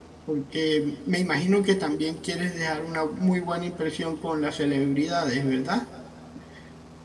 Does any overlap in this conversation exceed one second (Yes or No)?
No